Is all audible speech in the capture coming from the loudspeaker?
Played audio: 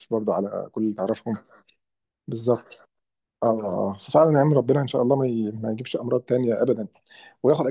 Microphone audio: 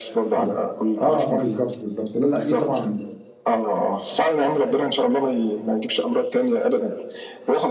No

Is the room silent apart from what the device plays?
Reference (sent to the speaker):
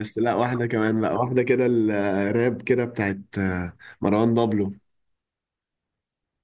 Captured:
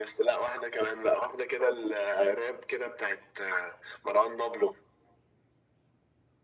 Yes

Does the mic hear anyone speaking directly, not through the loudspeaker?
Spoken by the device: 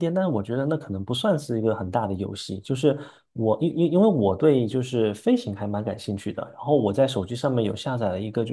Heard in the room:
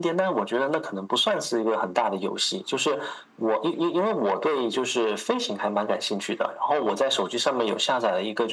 No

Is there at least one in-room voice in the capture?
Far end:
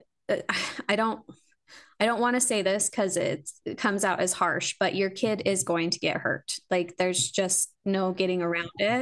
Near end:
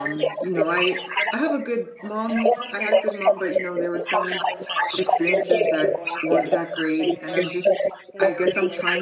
Yes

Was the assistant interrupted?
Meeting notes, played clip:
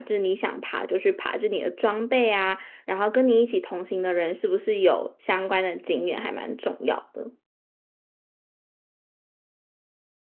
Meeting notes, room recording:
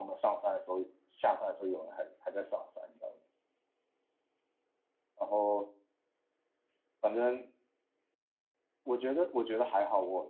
Yes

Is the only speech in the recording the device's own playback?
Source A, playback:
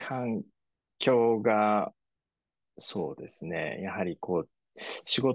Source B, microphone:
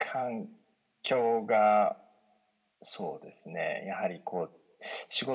Yes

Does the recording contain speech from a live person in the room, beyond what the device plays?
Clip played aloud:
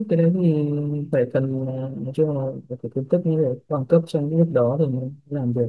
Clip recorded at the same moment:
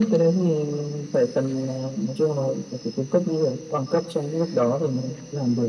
No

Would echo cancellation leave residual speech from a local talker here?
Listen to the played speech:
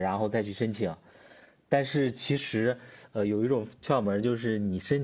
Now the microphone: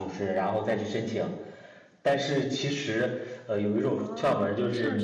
Yes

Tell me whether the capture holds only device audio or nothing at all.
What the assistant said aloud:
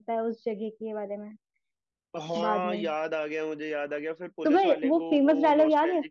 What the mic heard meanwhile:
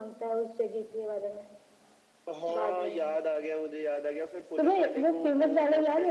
Yes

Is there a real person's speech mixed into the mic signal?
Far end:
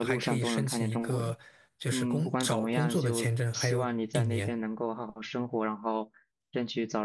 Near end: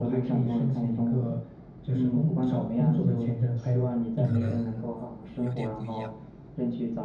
Yes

